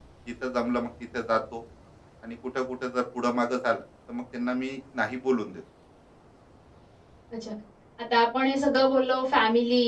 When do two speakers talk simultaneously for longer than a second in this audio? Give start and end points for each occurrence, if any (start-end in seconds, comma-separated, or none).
none